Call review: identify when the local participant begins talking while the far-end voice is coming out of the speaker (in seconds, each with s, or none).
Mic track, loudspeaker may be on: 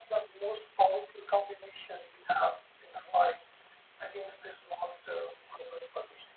none